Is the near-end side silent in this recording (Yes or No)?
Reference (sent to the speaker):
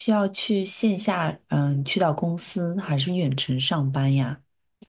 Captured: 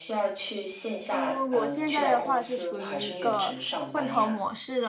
No